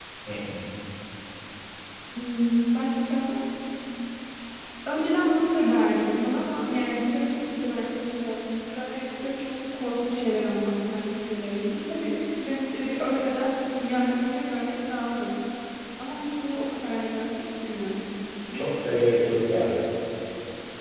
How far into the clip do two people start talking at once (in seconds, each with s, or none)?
none